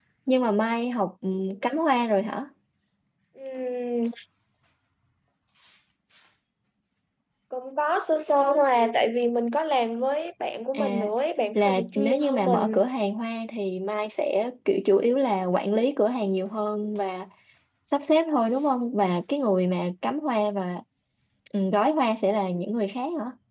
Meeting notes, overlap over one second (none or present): present